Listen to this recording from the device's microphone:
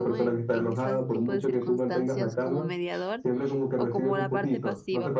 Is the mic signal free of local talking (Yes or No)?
No